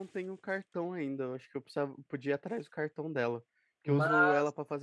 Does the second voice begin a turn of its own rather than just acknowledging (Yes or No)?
No